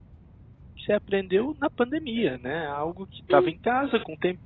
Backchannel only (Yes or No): Yes